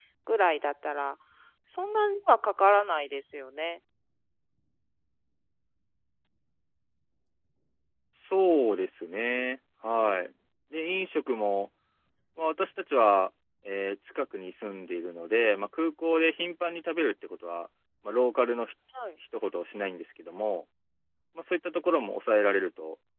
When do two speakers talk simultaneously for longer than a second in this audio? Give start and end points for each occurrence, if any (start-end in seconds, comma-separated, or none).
none